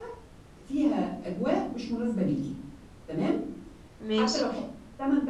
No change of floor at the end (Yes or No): Yes